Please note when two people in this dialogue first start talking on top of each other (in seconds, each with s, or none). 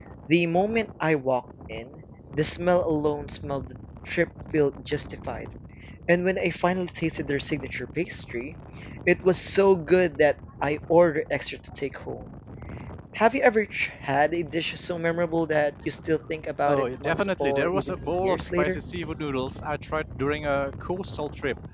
16.7 s